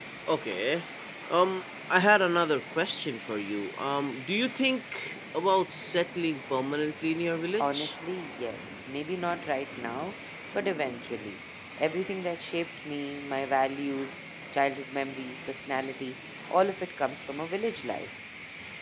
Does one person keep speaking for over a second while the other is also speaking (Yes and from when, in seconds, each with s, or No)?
No